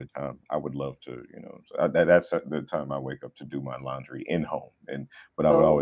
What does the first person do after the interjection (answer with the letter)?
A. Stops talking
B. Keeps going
B